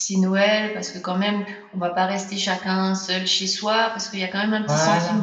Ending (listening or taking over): listening